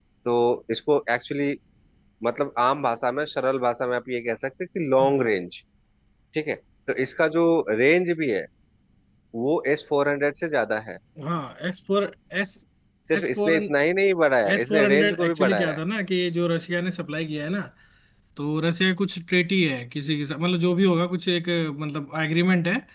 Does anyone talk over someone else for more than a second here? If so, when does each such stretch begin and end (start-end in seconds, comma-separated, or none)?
14.5-15.8